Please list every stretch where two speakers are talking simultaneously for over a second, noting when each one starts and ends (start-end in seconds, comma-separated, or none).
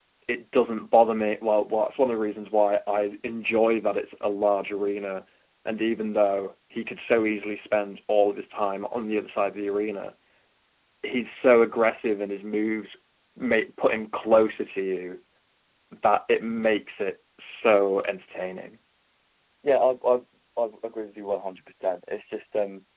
none